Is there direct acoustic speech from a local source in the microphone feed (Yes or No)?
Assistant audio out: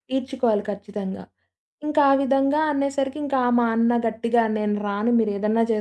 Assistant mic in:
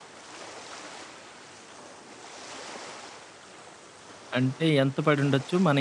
Yes